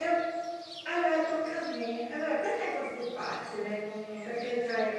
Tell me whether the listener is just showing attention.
Yes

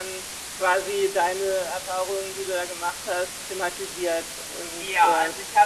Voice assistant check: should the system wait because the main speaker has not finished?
No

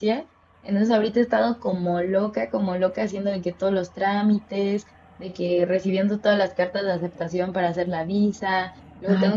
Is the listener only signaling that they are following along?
Yes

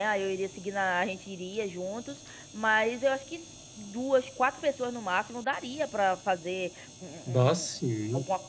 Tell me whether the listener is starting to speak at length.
No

